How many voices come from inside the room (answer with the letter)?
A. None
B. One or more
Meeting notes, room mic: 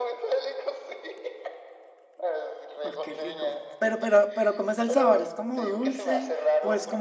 B